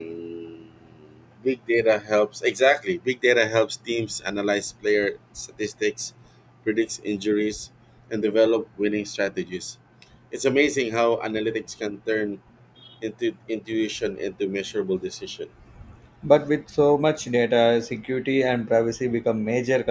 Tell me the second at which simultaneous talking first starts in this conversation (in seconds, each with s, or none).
none